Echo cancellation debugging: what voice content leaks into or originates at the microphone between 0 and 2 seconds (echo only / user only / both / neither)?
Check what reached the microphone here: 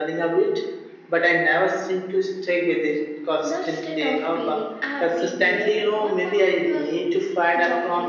echo only